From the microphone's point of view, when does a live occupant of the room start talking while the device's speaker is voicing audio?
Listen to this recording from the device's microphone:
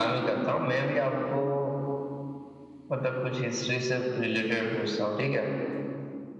none

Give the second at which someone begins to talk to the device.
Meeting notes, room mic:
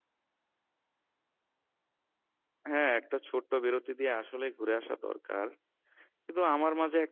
2.7 s

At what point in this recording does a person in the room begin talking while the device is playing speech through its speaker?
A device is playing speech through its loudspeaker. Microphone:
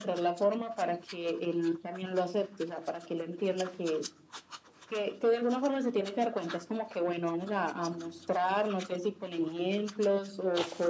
none

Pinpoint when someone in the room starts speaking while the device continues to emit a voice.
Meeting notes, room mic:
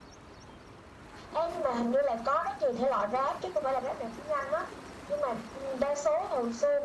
none

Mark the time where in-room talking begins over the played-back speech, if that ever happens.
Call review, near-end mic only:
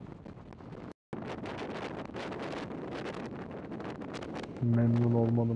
4.6 s

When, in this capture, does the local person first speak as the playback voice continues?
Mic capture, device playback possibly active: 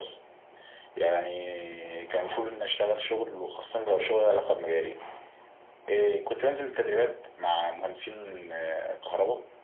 none

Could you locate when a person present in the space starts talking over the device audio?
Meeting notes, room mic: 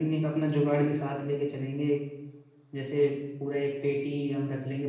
none

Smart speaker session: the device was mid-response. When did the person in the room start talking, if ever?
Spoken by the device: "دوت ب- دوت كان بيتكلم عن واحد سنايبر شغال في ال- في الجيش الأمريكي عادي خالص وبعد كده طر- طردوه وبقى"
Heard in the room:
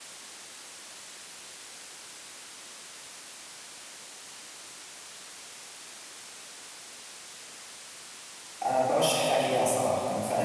8.7 s

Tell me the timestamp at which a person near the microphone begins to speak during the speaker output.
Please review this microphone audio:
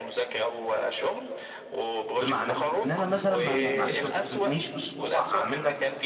2.2 s

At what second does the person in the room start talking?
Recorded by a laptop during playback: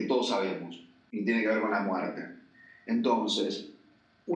none

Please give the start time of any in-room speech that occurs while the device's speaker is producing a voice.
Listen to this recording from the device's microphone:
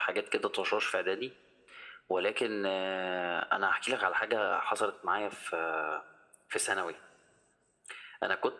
none

